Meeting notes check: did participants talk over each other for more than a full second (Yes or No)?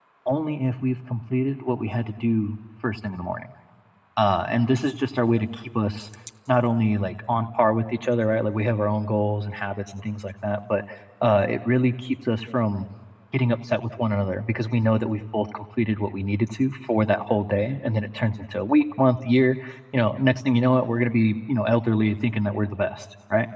No